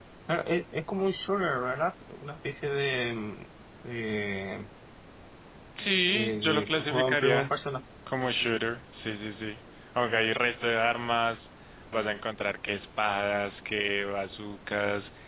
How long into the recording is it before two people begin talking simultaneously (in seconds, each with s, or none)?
6.1 s